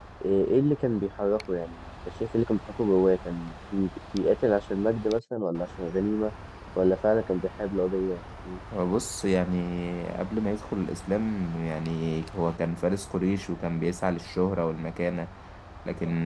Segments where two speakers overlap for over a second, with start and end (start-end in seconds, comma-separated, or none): none